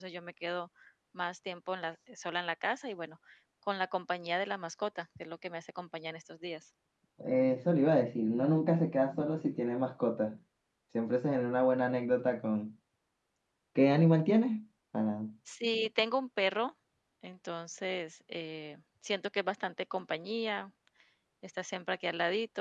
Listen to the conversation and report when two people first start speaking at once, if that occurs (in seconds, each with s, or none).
none